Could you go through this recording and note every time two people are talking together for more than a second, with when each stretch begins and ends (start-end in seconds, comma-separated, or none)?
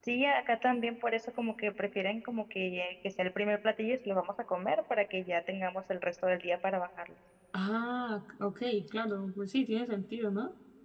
none